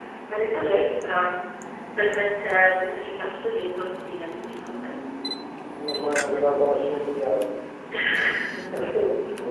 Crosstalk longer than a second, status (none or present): none